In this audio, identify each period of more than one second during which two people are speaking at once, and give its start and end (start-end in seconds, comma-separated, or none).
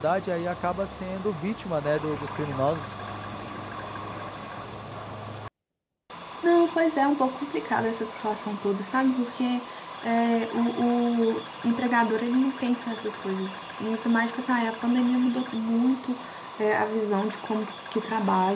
none